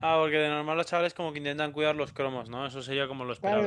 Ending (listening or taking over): taking over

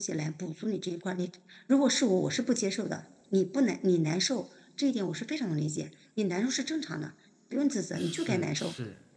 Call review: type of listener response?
taking over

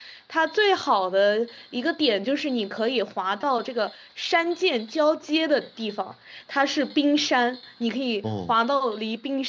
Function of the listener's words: listening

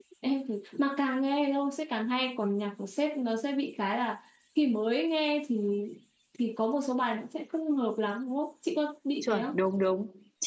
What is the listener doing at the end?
taking over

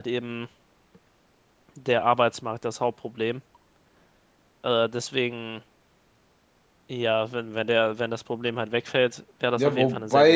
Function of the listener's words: taking over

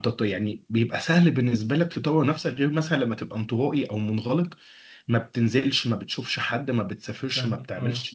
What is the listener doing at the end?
listening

